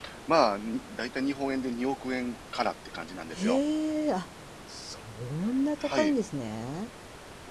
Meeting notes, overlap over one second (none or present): none